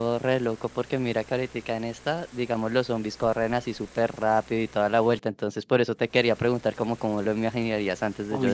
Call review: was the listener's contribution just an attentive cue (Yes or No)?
Yes